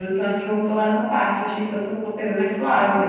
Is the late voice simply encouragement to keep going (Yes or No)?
Yes